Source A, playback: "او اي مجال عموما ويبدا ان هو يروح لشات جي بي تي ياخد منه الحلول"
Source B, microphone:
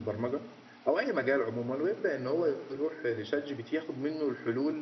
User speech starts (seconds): none

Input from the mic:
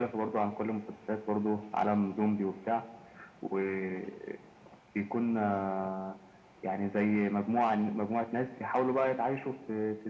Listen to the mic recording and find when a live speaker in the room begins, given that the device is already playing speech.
none

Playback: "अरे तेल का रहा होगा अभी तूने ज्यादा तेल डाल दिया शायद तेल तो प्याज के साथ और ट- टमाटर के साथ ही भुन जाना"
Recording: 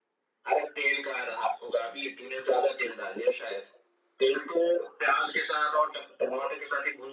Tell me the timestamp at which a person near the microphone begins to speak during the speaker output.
none

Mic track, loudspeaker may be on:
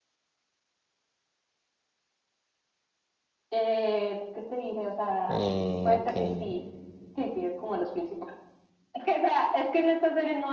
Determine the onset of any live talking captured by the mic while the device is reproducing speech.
5.2 s

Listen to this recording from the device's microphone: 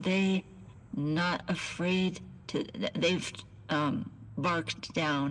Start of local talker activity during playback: none

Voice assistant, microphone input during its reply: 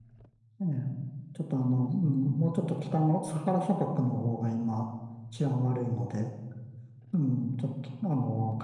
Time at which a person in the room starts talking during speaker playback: none

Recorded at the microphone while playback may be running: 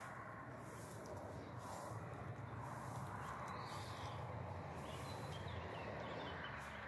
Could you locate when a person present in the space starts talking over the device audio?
none

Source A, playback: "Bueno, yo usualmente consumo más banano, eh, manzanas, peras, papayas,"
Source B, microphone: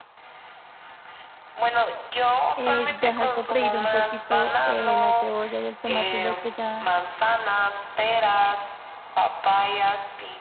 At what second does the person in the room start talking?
2.6 s

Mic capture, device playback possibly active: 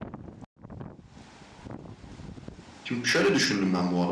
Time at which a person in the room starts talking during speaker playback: 2.8 s

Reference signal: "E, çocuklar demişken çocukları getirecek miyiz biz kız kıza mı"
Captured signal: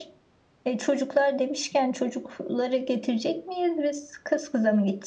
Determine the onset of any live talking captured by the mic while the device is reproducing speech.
none

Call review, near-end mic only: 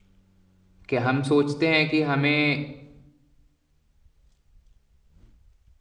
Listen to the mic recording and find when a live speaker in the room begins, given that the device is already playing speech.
0.9 s

